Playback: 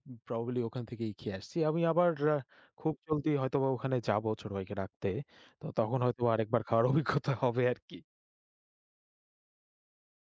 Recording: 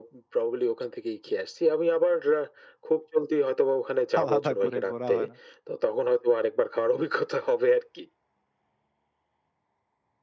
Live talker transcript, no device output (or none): আলাদা করে ঘোরা হয় না।